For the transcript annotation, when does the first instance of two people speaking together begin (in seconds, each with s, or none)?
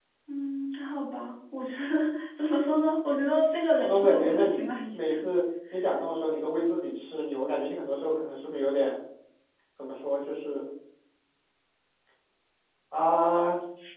3.8 s